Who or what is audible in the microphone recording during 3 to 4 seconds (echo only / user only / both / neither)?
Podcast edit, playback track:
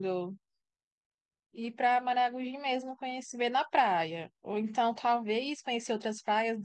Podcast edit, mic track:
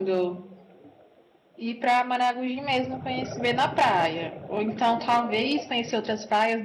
echo only